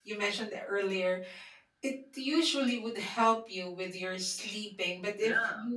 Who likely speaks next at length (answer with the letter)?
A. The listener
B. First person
B